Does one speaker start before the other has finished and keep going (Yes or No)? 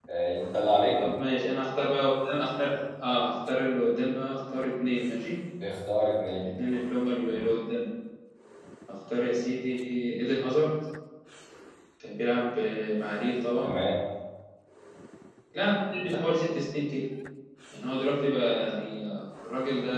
No